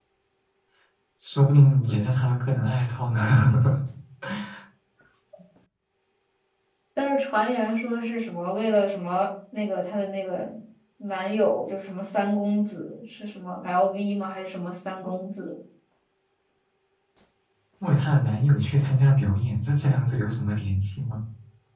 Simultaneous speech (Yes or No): No